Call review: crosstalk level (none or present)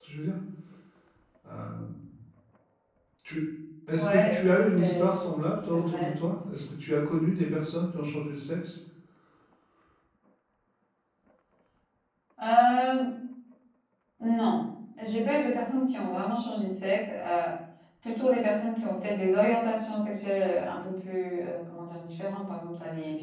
present